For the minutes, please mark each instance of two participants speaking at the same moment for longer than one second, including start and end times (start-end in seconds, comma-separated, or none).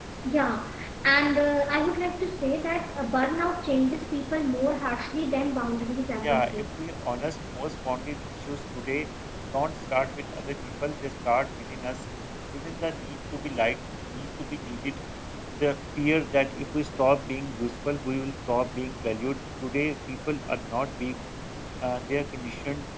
none